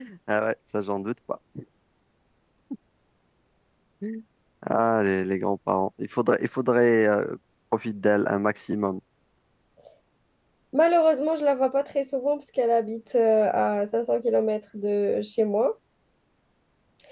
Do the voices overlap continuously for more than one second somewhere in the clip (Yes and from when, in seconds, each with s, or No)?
No